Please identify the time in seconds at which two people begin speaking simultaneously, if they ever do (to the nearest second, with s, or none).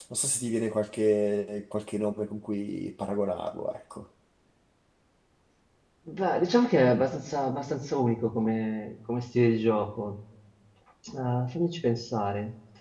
none